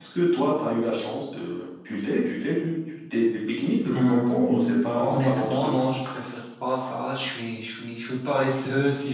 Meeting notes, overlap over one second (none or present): present